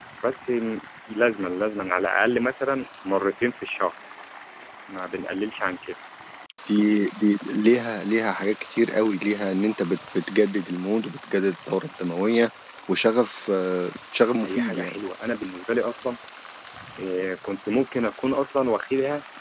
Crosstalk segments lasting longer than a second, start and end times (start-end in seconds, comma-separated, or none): none